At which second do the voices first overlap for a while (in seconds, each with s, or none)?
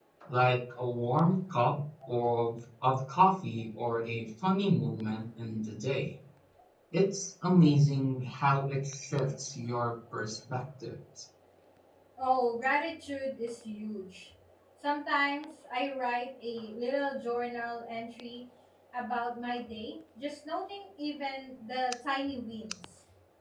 none